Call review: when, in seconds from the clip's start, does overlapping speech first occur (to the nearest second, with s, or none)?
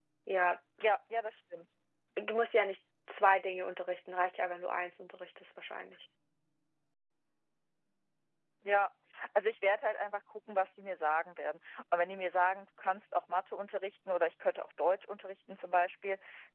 none